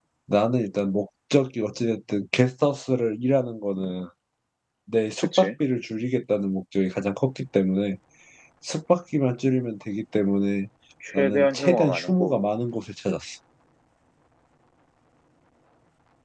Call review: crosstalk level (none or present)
present